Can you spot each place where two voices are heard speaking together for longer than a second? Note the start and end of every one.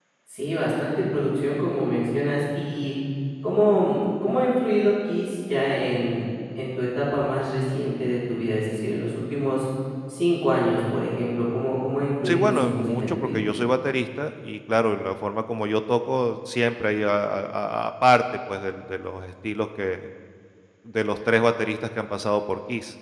12.2-13.4

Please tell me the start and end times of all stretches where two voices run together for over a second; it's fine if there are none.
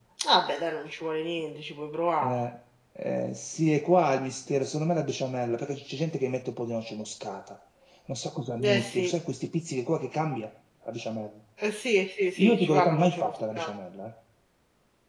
12.4-13.7

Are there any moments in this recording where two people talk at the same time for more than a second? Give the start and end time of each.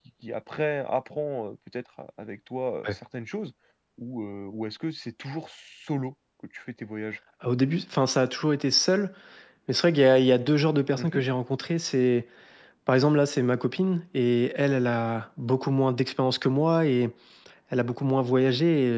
none

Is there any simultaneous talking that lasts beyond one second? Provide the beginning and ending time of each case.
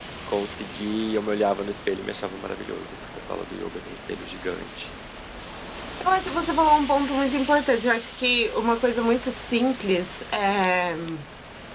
none

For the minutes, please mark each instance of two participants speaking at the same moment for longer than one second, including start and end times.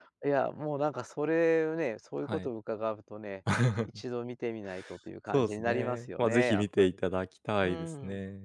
5.3-7.0

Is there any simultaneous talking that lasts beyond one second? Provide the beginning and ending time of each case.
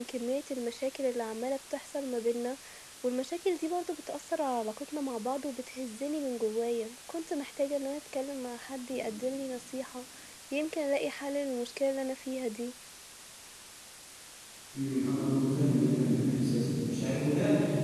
none

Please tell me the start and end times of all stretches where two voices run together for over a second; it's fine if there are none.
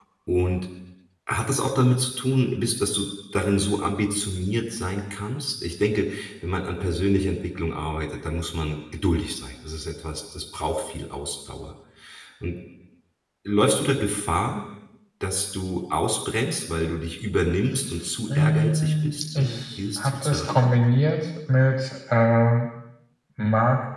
18.3-20.7

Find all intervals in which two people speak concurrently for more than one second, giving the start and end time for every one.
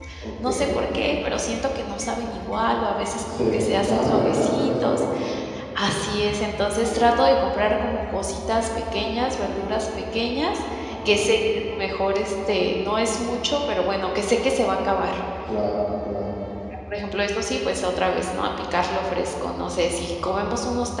3.3-5.0

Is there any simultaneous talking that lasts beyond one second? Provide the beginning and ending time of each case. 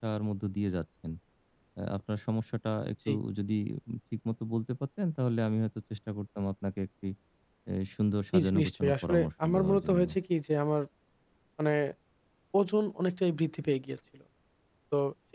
8.3-10.1

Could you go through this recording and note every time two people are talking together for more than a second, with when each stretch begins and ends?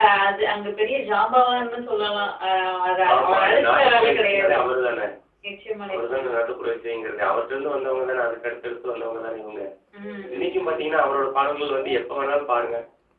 3.1-4.5

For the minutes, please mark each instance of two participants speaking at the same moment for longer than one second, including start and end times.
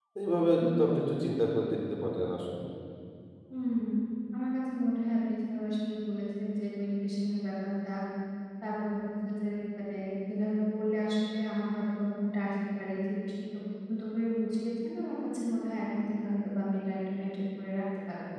none

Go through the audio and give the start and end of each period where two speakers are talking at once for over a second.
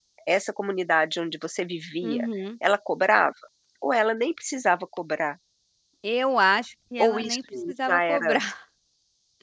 7.0-8.3

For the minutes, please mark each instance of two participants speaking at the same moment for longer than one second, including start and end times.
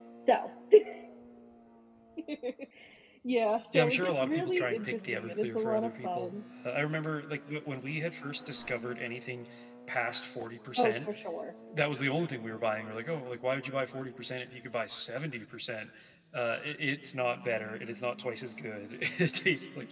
3.7-6.3

